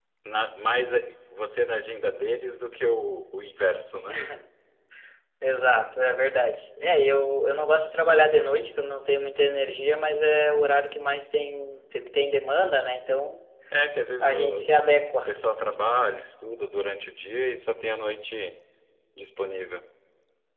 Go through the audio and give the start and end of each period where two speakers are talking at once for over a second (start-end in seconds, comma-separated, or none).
none